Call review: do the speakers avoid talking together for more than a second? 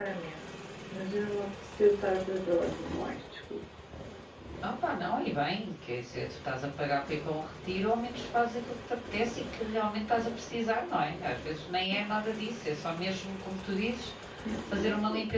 Yes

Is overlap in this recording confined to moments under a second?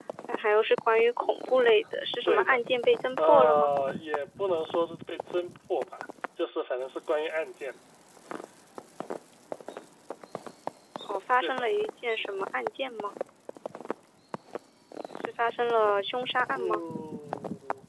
Yes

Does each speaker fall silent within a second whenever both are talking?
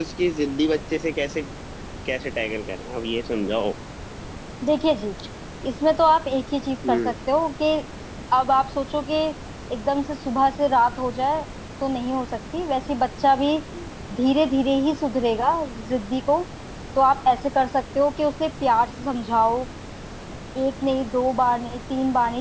Yes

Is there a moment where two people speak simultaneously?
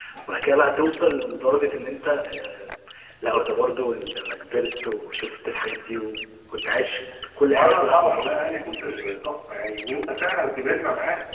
Yes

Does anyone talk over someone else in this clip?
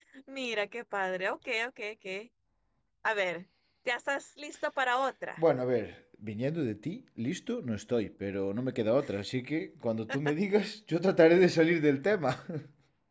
No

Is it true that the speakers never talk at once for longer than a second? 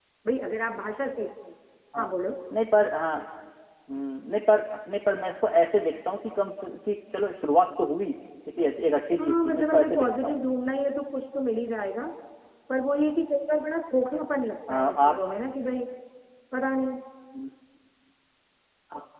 No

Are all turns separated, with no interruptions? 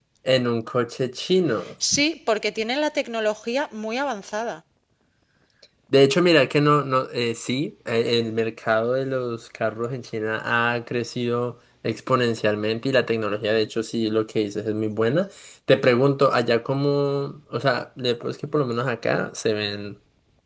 Yes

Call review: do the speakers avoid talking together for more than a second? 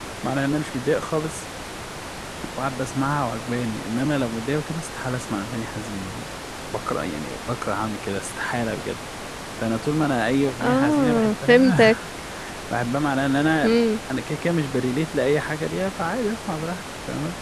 No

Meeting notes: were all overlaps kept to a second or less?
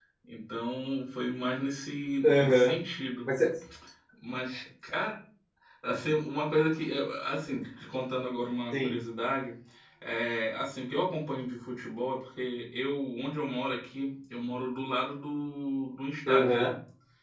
Yes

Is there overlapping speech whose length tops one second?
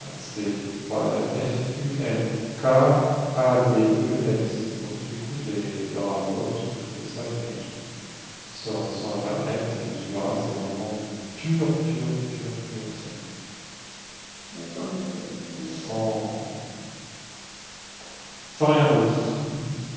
No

